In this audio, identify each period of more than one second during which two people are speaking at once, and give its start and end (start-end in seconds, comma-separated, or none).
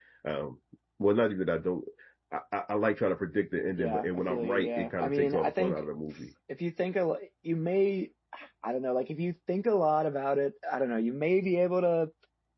3.8-5.8